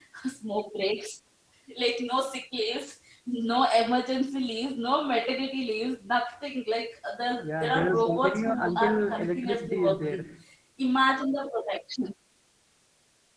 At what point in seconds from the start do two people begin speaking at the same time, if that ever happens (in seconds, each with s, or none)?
7.4 s